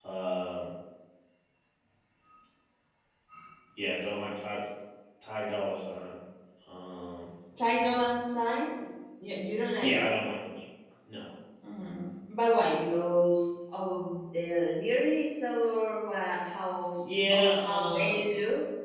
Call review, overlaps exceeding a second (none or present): present